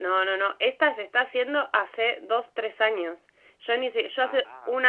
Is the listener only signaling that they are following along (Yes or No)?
Yes